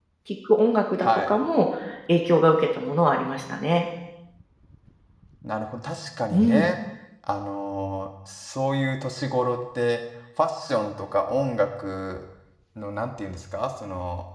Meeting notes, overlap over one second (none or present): none